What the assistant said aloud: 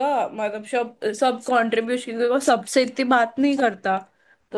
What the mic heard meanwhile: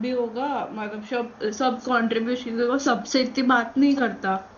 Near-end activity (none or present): none